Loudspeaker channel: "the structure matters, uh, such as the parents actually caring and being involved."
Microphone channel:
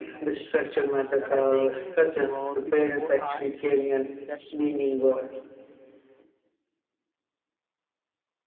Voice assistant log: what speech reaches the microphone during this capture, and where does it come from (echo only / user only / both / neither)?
both